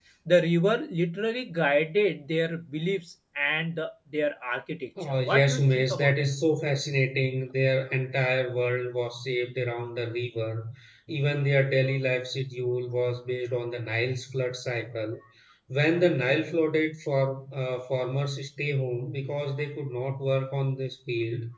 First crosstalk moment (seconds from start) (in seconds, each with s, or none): 5.0 s